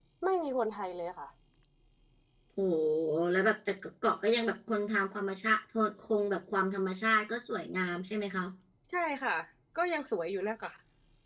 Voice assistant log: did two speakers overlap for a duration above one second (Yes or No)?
No